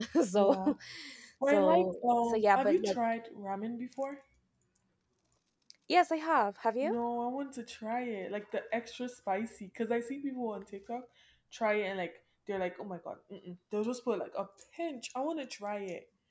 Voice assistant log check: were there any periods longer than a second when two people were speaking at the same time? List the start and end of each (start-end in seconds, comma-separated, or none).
1.5-3.0